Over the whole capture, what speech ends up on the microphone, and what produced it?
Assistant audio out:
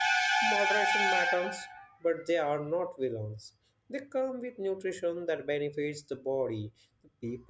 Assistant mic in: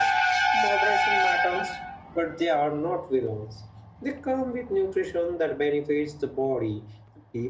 echo only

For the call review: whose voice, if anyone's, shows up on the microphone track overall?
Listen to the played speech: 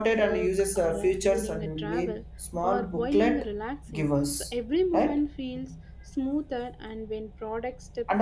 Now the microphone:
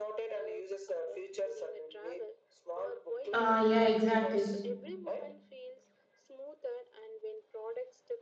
both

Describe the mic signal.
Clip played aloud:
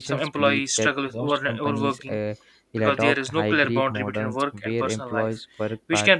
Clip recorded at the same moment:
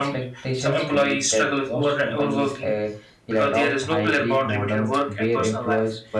echo only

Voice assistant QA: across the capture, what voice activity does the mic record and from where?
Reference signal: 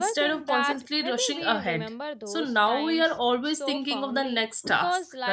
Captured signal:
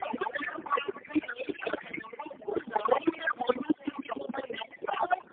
echo only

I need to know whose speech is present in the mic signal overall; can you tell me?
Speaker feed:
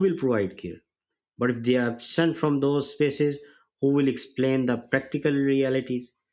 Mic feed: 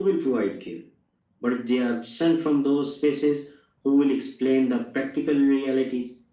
echo only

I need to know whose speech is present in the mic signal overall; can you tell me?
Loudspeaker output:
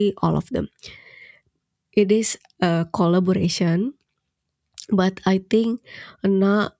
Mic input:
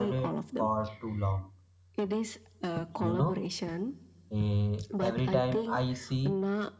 both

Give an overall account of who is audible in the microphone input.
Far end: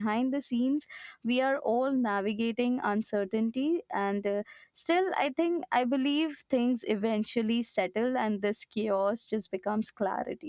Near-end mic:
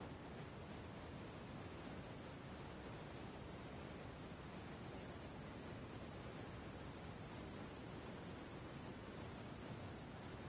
neither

